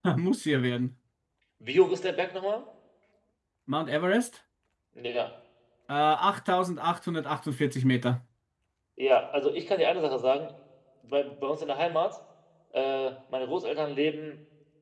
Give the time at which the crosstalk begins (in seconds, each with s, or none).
none